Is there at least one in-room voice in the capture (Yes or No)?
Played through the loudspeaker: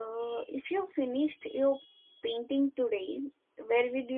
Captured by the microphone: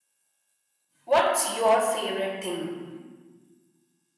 Yes